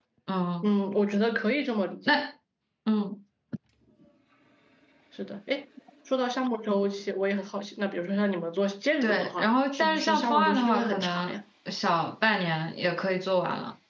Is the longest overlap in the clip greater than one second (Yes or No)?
Yes